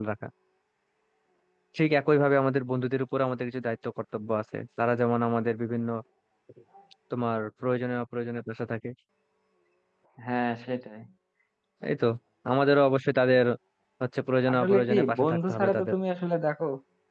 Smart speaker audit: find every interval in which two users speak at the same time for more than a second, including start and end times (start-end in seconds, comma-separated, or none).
14.5-15.9